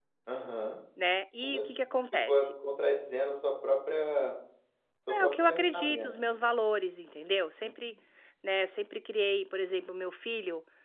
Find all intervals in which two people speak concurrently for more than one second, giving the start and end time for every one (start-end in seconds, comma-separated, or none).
5.1-6.3